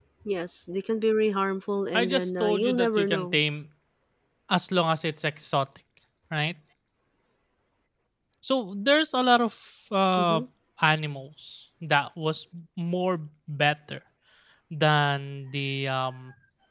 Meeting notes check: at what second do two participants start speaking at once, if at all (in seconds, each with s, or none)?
1.9 s